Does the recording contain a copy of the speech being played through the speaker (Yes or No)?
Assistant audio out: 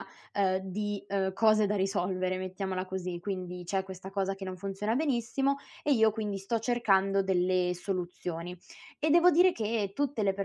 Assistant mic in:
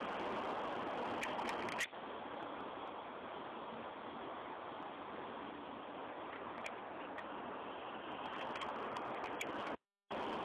No